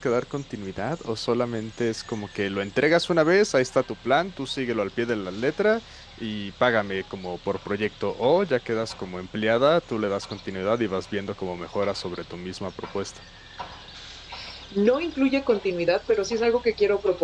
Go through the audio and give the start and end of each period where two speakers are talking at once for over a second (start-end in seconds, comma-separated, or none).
none